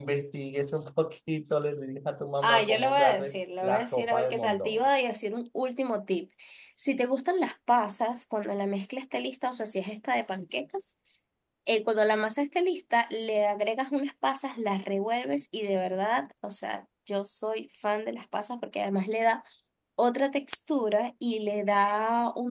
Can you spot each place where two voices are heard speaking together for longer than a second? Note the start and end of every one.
2.4-4.9

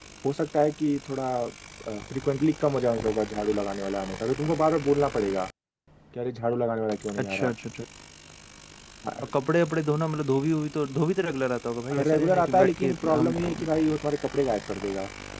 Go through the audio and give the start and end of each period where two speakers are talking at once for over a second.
12.0-13.5

